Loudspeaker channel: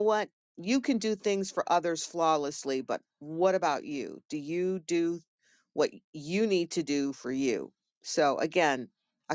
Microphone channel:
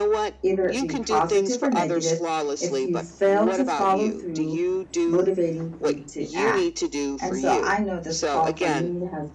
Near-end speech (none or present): present